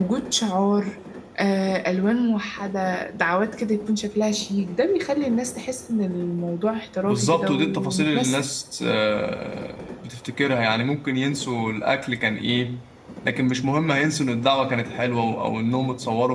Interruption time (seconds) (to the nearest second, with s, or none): 7 s